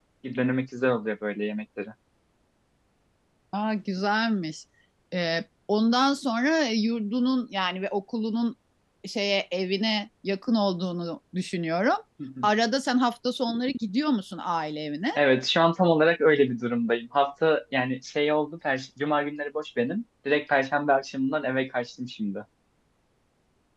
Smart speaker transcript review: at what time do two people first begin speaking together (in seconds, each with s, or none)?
none